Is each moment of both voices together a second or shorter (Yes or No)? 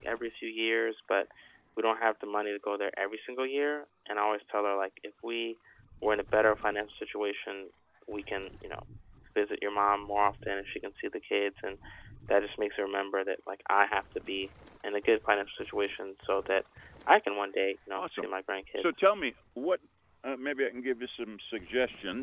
Yes